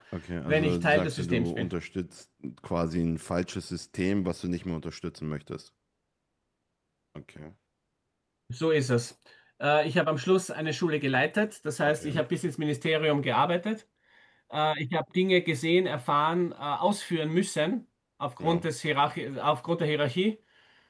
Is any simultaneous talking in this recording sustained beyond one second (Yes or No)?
Yes